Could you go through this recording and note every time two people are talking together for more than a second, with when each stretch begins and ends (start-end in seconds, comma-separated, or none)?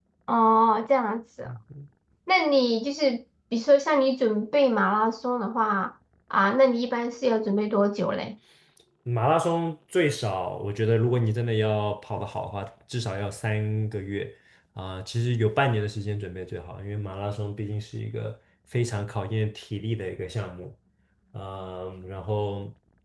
none